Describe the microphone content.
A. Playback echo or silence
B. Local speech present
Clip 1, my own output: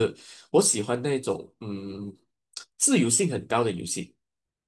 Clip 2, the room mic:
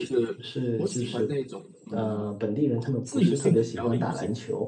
B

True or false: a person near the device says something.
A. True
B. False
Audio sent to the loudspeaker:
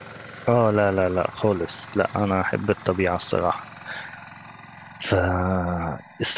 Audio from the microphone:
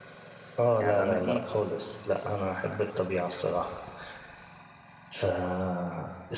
A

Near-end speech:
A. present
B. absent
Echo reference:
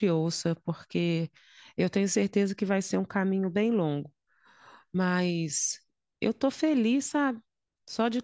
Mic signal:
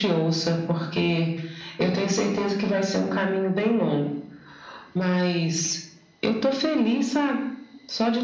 B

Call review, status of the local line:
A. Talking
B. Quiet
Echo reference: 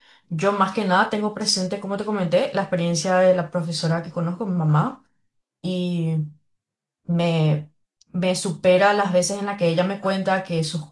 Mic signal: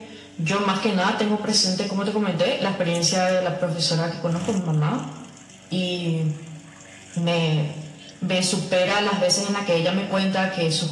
B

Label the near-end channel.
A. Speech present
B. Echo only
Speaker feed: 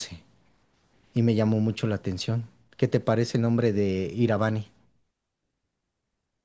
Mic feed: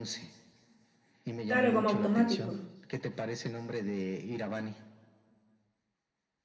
A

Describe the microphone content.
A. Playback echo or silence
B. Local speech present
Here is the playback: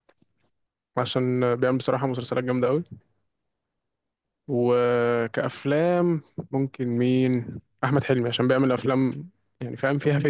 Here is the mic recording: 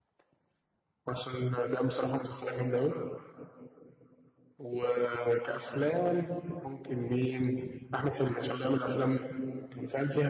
A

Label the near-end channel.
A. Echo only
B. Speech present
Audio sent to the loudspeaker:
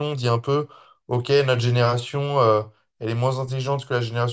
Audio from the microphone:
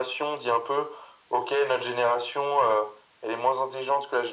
A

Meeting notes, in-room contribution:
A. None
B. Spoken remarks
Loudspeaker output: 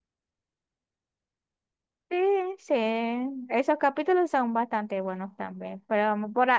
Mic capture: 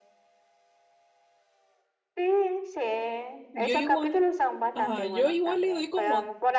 B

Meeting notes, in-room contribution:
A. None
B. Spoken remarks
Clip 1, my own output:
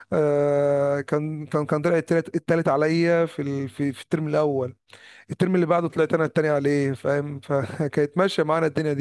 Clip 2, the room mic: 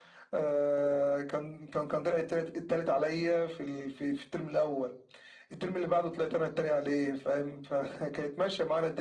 A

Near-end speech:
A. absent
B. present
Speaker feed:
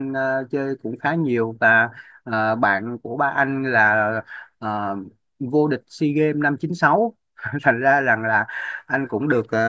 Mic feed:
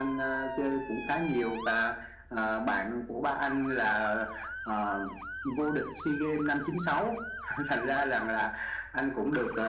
A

